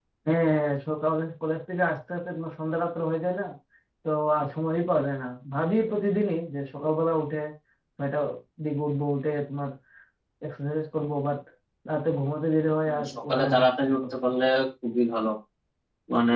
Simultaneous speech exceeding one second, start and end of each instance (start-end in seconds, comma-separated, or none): 12.9-14.1